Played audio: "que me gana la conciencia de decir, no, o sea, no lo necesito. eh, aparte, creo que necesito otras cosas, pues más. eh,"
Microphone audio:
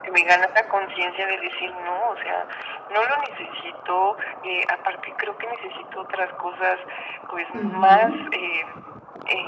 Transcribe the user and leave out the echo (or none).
Ujú.